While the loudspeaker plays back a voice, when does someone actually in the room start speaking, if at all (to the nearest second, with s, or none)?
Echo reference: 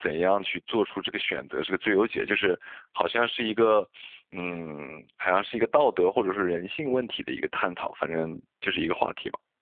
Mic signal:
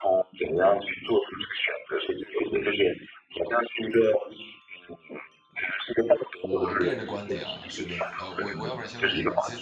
6 s